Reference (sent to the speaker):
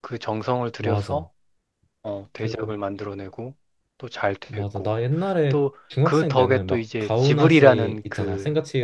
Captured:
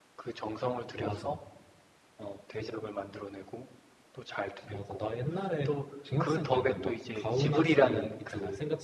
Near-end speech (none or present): none